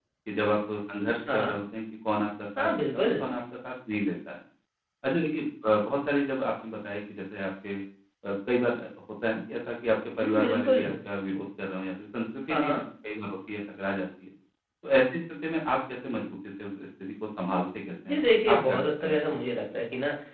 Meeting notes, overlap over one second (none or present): present